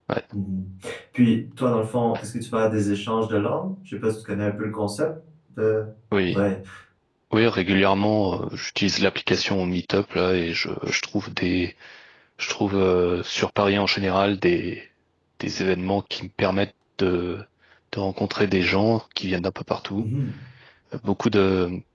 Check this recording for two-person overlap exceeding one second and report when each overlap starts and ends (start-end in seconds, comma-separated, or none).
none